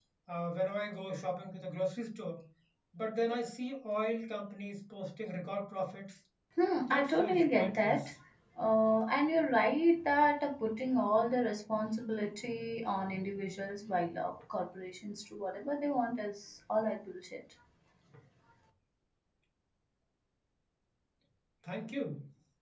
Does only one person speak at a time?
No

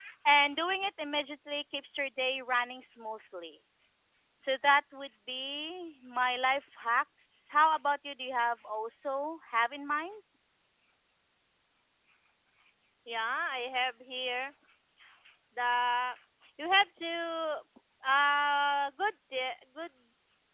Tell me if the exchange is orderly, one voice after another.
Yes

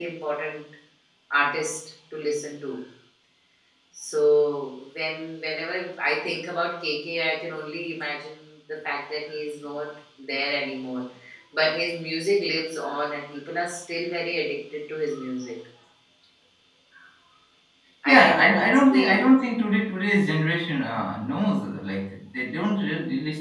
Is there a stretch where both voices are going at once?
Yes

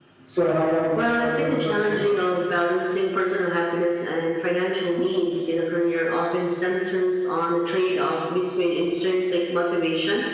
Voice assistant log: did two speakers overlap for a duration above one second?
Yes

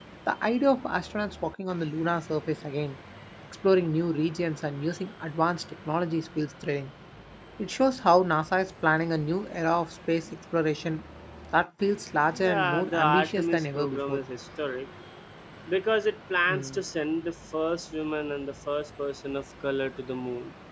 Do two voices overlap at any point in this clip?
Yes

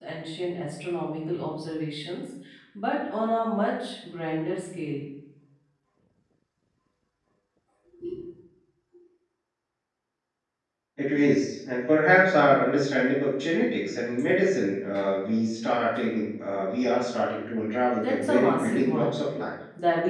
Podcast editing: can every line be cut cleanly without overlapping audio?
No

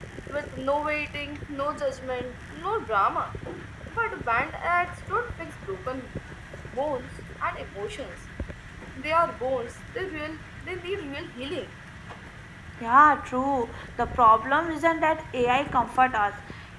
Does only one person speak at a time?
Yes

